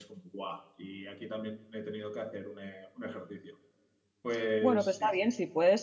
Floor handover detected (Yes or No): Yes